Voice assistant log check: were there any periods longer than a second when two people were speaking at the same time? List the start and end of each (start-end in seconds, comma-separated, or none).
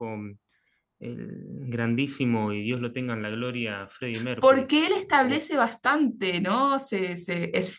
none